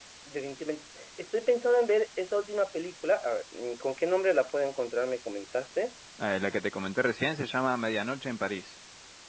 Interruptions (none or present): none